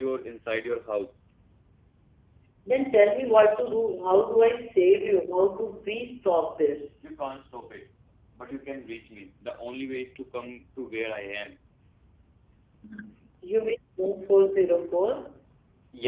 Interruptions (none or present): none